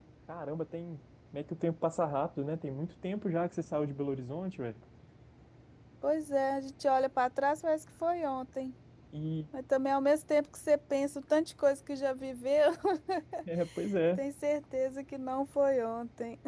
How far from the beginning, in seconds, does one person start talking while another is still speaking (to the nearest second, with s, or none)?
none